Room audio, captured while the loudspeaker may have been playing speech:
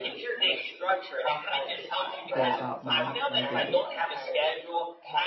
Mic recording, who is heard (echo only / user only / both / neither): both